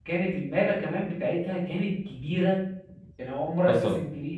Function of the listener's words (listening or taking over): listening